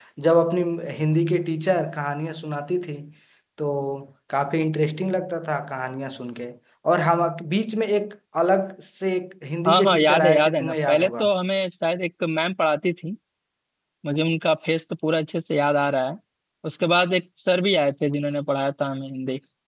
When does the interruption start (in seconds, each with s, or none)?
9.7 s